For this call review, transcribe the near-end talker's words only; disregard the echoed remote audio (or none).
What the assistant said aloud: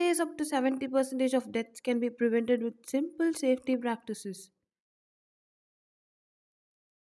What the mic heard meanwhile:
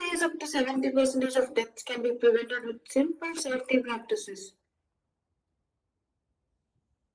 none